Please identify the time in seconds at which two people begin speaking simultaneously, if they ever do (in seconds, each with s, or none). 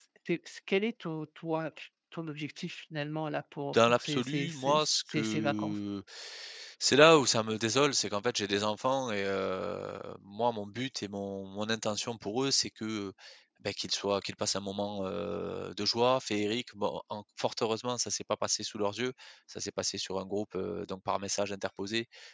3.7 s